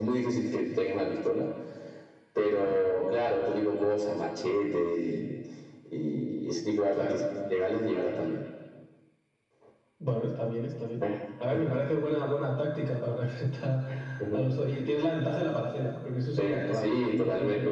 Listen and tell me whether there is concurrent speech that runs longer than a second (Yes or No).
Yes